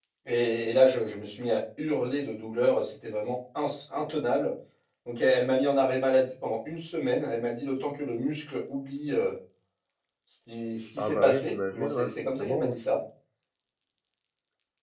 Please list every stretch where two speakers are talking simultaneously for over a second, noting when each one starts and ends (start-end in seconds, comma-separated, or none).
11.0-12.8